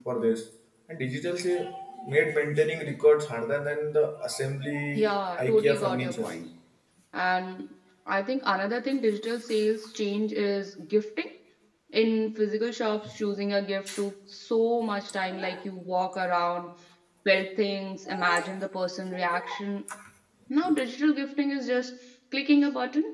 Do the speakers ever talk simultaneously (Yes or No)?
Yes